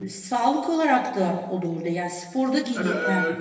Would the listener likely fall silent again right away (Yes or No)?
Yes